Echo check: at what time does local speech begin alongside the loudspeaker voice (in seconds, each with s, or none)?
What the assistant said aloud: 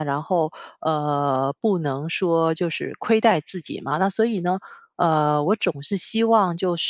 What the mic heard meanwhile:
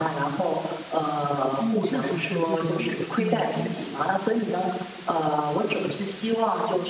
1.6 s